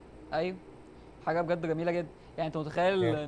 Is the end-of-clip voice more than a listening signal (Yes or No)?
No